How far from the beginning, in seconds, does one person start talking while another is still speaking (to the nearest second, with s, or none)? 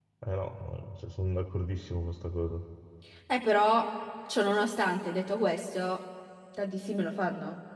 none